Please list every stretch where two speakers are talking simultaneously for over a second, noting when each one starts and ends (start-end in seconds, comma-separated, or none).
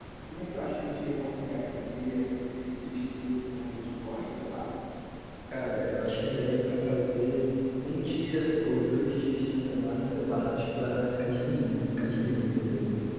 none